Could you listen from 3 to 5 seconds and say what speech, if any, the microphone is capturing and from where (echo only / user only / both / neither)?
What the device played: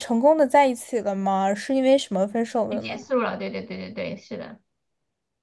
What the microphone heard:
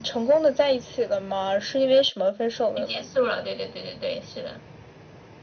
echo only